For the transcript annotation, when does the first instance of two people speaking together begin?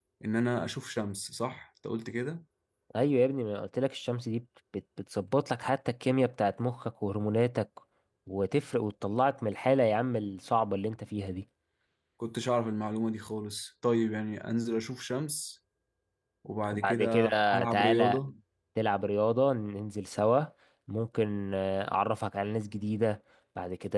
16.7 s

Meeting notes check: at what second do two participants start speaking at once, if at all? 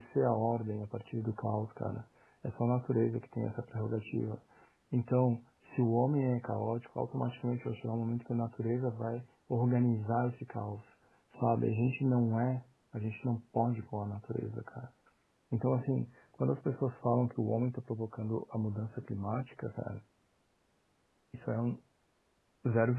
none

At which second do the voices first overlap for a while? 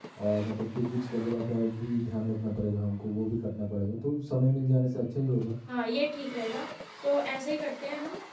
none

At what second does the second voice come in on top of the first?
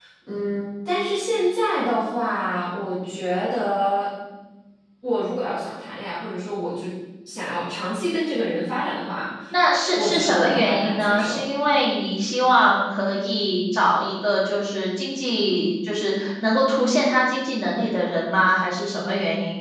9.9 s

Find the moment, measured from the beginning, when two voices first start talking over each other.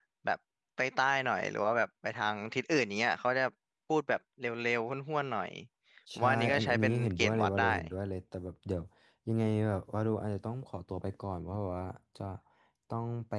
6.2 s

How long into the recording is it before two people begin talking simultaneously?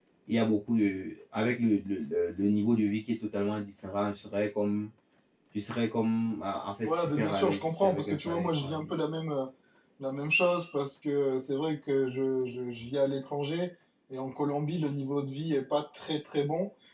6.8 s

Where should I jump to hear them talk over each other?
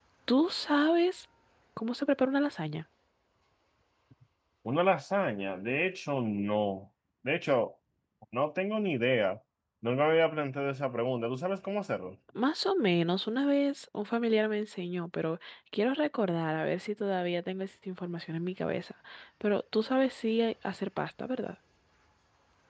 none

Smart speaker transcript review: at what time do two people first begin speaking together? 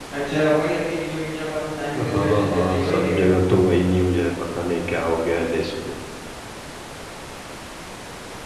1.9 s

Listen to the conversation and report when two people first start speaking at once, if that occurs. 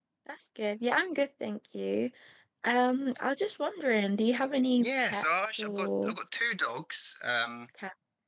4.8 s

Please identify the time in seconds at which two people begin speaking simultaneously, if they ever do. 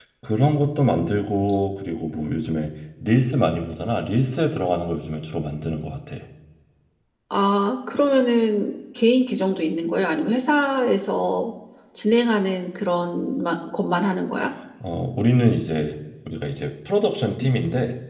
none

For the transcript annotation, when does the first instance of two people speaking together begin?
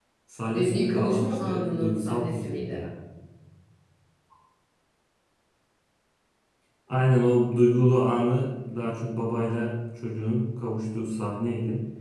0.5 s

